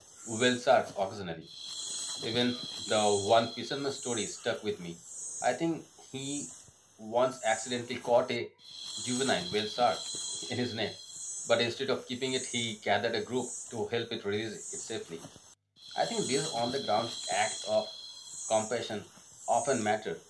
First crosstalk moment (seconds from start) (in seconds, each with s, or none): none